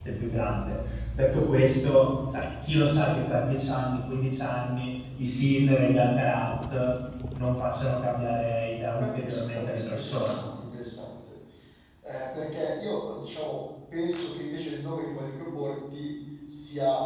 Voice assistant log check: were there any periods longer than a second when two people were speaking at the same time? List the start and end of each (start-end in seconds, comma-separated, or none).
9.0-10.4